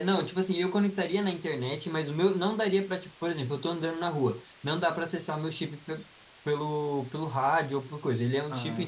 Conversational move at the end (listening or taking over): listening